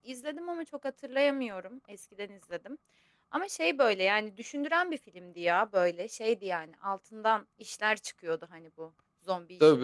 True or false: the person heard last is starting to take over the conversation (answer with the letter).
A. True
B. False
A